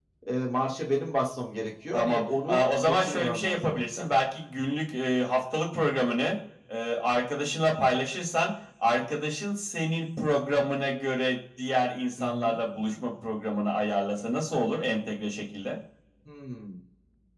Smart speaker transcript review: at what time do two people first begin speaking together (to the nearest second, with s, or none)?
2 s